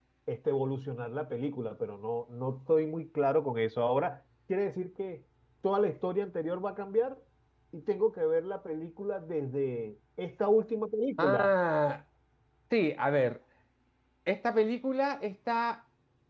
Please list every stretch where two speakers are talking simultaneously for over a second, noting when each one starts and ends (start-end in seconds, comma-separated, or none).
none